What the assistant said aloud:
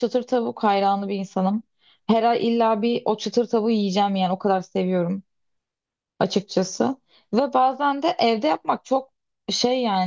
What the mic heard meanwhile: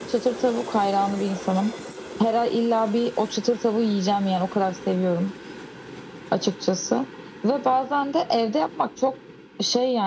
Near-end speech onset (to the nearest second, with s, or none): none